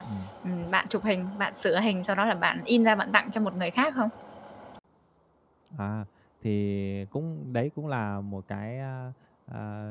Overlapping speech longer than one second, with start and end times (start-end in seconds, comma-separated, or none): none